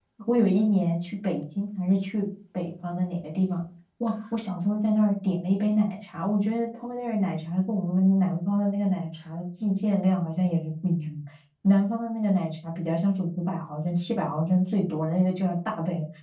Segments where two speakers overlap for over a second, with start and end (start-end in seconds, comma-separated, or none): none